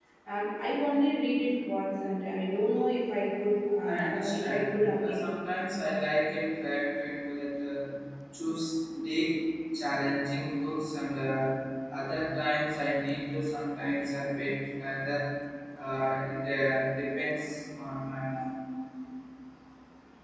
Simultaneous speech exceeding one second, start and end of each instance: 3.8-5.3

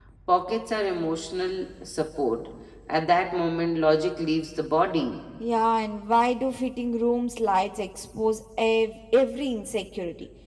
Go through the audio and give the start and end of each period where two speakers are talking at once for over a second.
none

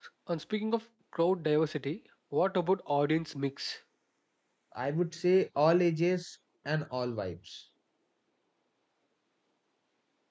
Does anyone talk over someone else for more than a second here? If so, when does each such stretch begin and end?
none

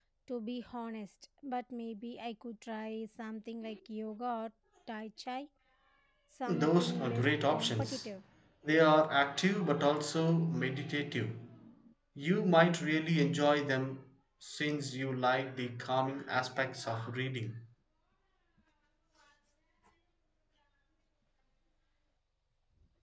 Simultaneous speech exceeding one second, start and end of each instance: 6.6-8.1

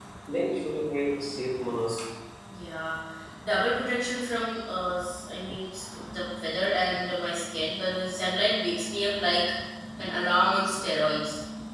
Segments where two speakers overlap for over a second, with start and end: none

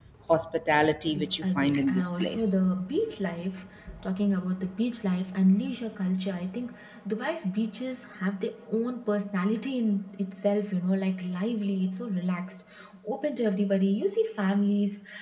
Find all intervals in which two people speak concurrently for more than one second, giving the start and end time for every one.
1.1-2.6

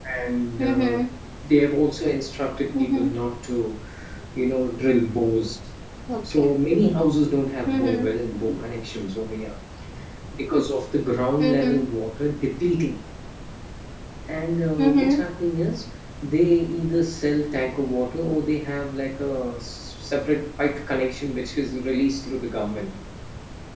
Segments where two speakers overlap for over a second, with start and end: none

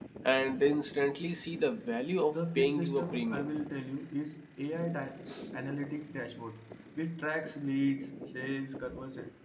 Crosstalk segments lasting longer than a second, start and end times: 2.3-3.5

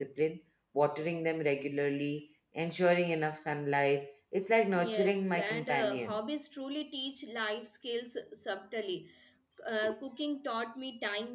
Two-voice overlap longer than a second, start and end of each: 4.7-6.2

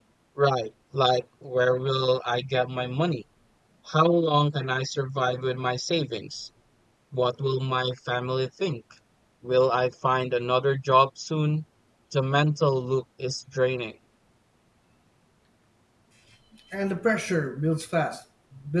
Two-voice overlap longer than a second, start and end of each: none

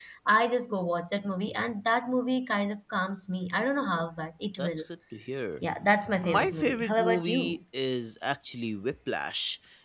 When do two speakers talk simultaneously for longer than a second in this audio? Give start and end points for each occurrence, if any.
6.2-7.6

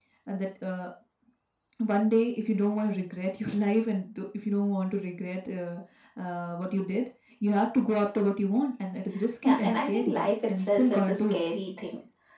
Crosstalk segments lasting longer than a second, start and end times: 9.4-11.4

